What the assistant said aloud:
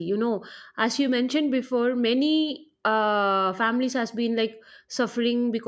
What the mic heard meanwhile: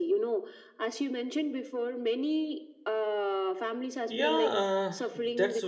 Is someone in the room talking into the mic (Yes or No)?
Yes